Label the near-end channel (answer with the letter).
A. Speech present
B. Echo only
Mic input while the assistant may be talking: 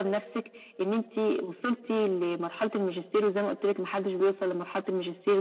B